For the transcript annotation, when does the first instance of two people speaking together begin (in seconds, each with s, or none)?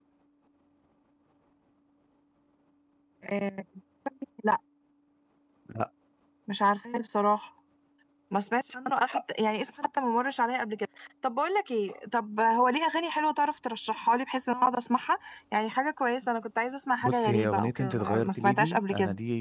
17.0 s